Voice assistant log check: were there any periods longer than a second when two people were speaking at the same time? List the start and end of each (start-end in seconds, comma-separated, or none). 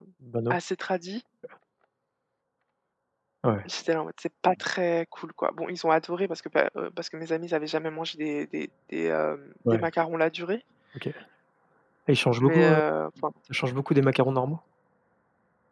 none